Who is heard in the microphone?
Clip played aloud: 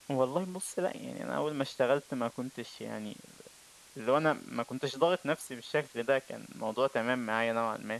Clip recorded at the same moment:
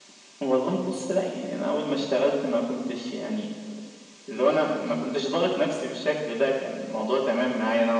echo only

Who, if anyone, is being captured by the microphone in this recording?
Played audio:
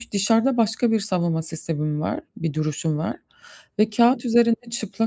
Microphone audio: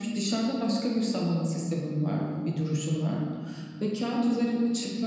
echo only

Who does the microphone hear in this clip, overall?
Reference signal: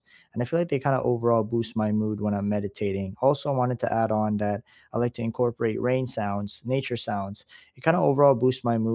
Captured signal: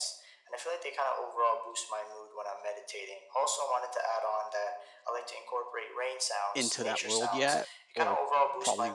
both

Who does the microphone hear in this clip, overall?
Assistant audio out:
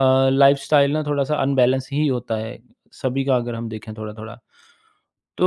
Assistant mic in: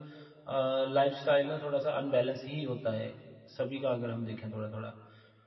echo only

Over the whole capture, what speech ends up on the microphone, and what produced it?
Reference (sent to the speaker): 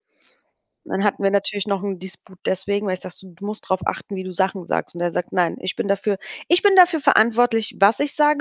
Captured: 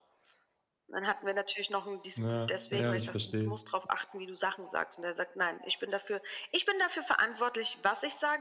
both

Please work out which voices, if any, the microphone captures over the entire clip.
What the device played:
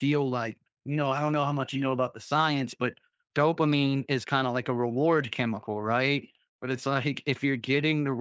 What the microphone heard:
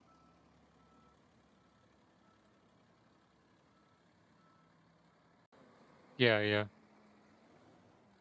user only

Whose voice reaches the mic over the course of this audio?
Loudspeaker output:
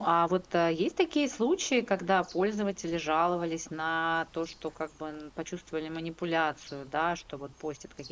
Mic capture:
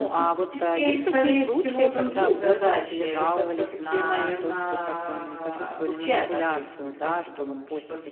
both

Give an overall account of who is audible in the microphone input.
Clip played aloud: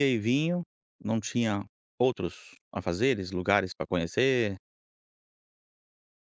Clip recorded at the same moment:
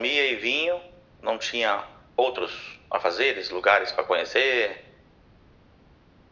echo only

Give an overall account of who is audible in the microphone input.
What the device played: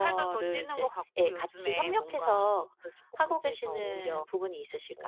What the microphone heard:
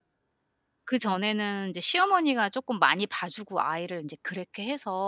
user only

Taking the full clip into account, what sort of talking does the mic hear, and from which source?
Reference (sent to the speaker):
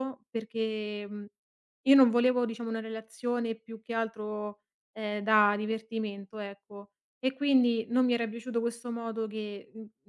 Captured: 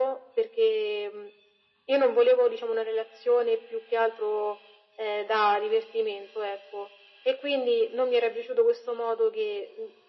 echo only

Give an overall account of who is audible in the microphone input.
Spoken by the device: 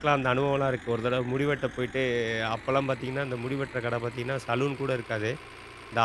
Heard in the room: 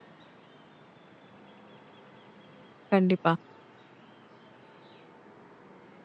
user only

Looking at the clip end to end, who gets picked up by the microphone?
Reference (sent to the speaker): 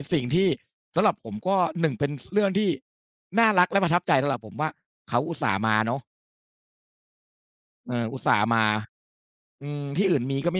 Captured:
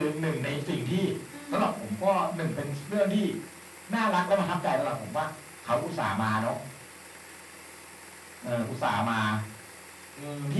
both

